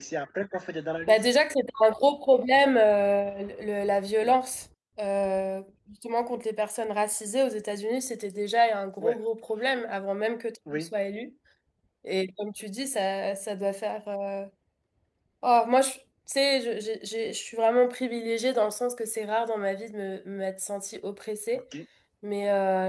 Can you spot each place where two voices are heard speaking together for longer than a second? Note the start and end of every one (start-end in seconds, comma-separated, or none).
none